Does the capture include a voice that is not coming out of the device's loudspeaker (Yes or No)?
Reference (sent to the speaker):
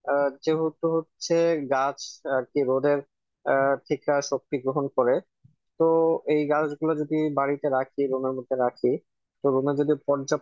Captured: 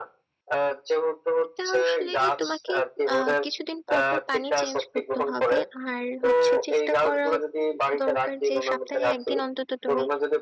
Yes